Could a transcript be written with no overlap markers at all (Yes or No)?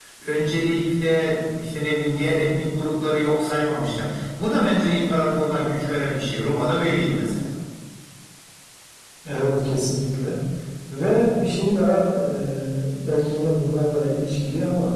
Yes